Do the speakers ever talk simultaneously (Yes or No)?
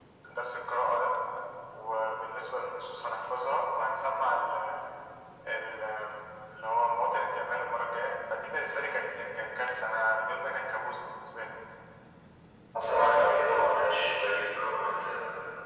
No